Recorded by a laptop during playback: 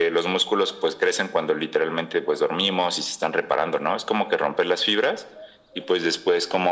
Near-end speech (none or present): none